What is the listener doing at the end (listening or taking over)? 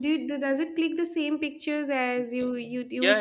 taking over